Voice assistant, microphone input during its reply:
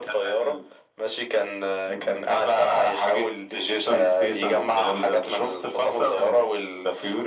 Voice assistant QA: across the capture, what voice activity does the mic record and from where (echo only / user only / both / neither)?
echo only